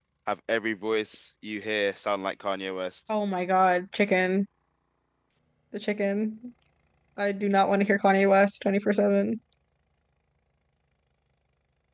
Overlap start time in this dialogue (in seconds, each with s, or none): none